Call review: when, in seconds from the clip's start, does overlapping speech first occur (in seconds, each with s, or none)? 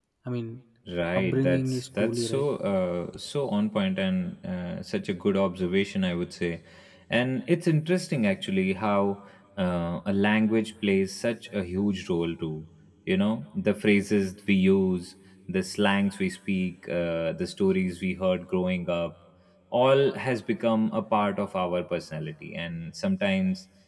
1.2 s